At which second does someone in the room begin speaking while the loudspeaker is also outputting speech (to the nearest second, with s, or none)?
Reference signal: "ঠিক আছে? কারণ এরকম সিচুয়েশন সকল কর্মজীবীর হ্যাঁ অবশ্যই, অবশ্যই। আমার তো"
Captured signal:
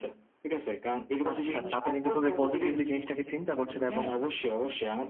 1 s